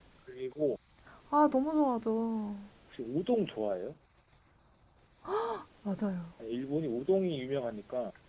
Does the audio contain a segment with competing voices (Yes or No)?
No